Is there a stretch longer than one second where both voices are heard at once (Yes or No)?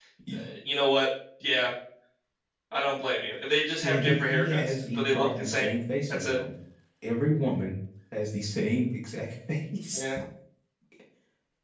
Yes